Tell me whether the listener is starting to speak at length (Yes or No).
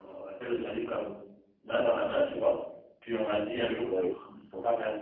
No